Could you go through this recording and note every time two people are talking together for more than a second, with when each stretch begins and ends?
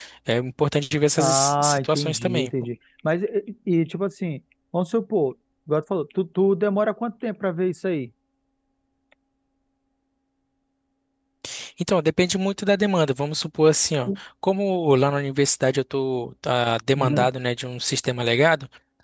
1.2-2.5

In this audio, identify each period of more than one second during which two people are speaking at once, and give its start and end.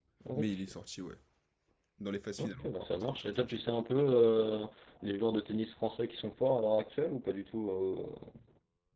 2.4-3.6

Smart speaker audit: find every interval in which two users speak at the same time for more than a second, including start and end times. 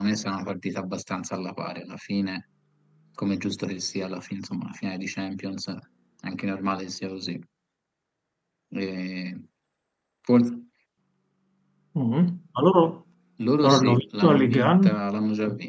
13.6-15.0

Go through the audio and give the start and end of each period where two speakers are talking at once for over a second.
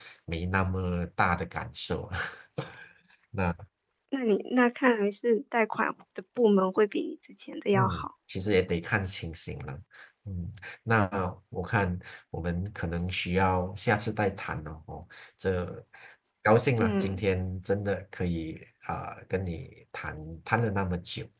none

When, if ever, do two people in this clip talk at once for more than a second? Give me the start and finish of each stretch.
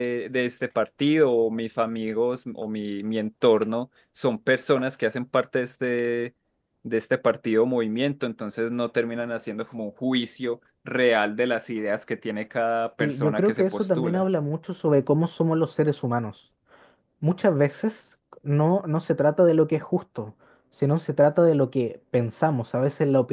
13.0-14.2

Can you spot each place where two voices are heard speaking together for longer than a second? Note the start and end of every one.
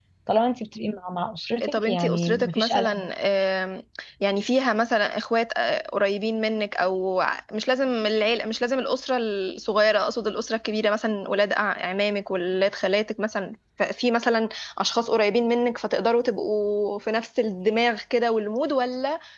1.6-3.1

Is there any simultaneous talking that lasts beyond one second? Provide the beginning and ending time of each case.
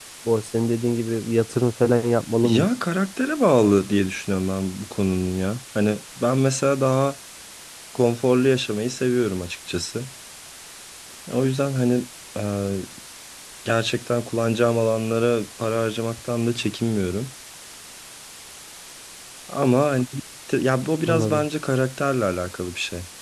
none

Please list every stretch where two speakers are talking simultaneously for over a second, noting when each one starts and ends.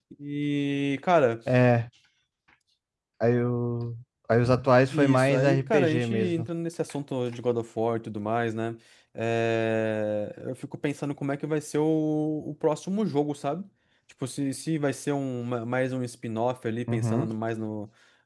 4.9-6.5

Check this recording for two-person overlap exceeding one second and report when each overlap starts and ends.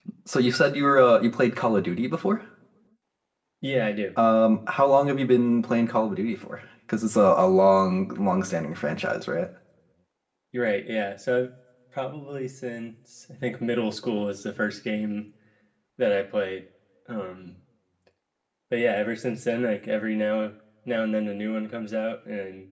none

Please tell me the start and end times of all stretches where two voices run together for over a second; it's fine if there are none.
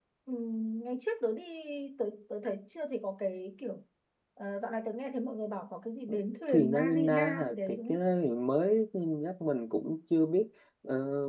6.5-8.0

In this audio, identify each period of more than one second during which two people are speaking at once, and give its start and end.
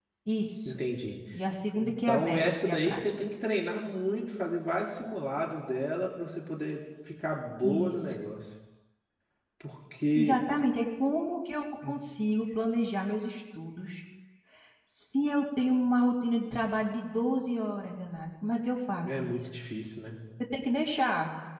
1.7-3.0

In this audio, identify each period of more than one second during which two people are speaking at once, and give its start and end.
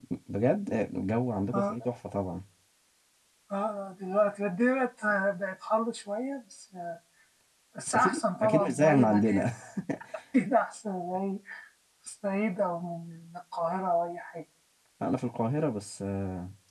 7.9-9.5

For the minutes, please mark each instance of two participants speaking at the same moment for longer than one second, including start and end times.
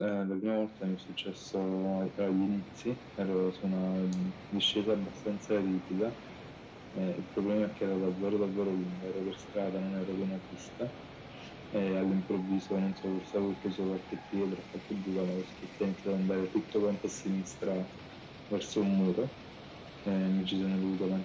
none

